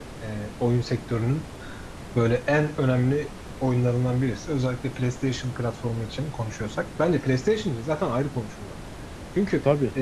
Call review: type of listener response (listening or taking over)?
listening